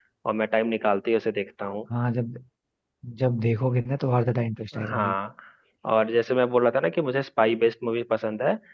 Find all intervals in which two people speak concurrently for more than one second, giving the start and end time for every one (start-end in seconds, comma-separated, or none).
none